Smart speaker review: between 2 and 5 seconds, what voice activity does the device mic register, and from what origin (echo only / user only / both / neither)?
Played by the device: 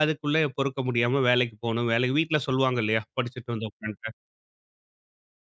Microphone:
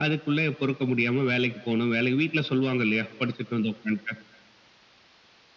echo only